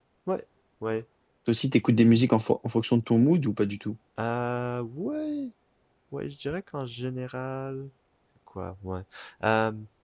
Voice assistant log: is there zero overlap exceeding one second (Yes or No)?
Yes